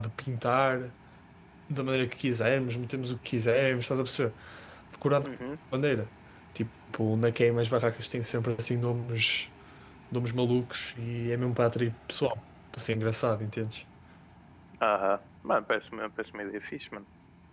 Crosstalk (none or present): none